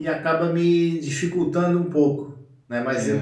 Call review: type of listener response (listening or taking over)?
listening